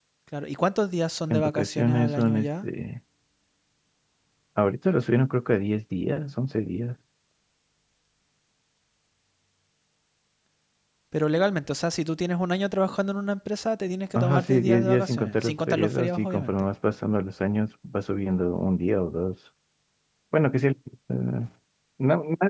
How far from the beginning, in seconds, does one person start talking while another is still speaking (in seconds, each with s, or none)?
1.3 s